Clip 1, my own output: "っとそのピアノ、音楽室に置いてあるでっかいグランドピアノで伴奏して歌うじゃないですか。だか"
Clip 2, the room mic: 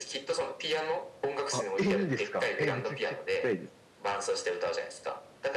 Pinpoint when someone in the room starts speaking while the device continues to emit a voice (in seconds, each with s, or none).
1.5 s